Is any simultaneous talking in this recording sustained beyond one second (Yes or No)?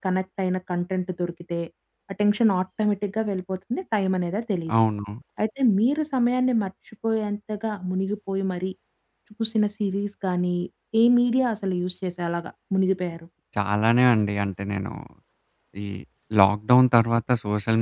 No